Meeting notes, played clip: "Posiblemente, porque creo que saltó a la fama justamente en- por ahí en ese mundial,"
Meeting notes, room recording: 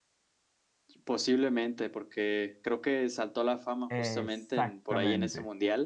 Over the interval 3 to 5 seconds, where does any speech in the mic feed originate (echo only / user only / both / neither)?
both